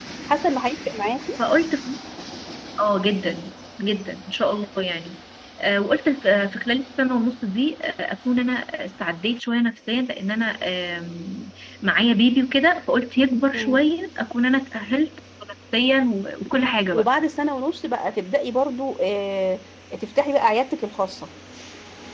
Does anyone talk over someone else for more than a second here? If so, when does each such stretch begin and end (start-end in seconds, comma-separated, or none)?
none